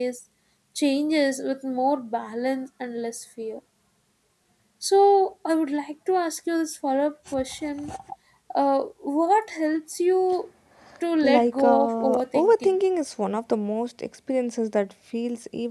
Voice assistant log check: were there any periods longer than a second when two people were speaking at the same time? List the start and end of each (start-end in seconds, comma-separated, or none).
11.2-12.8